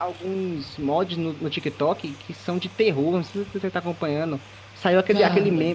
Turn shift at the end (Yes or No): No